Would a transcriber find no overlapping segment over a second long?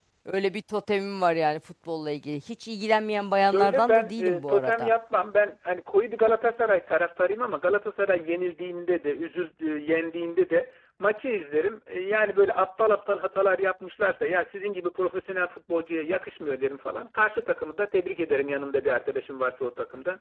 No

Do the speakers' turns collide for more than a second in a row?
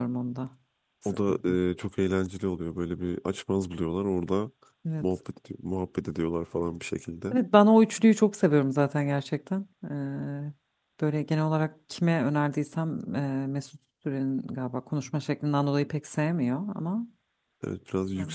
No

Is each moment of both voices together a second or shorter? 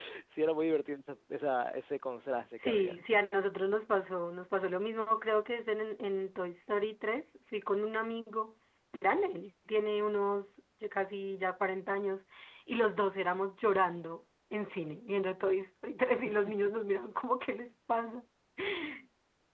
Yes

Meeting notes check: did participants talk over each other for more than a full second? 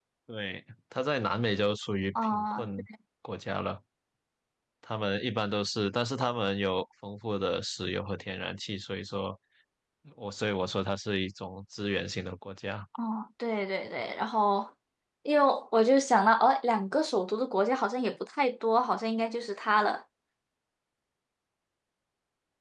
No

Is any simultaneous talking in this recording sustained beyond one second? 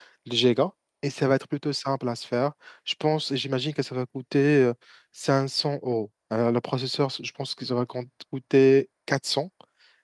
No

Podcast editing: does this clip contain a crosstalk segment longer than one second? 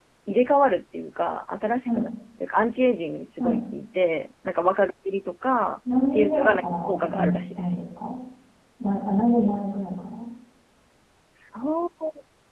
Yes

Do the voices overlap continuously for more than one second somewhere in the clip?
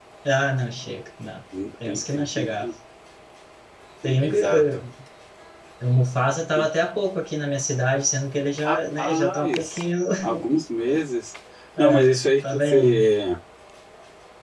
Yes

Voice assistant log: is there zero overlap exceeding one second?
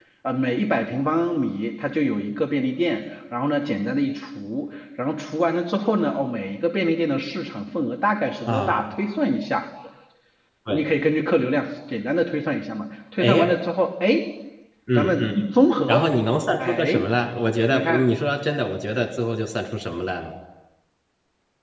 Yes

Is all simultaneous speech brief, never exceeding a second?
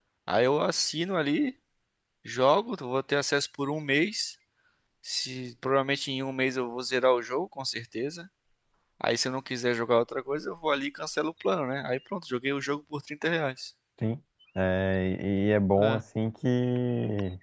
Yes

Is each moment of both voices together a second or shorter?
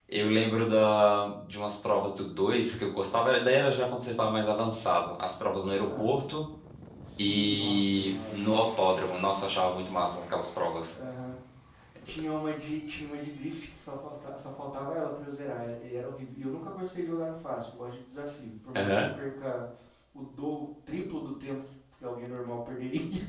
No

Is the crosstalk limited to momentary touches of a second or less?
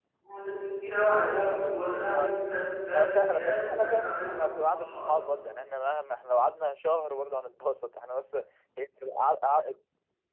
No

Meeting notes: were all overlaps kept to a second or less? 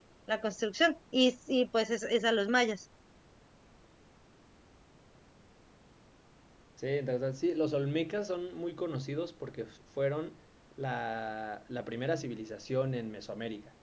Yes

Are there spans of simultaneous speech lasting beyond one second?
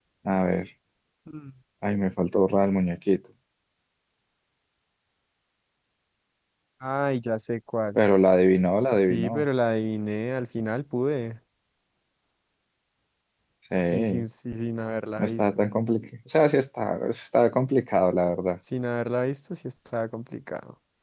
No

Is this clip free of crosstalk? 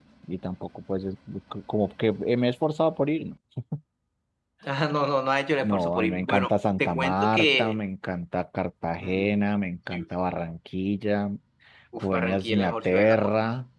No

